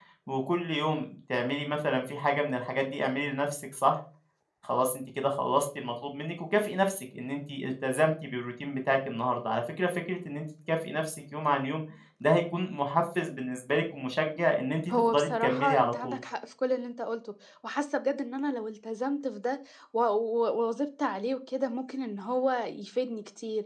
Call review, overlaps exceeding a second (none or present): present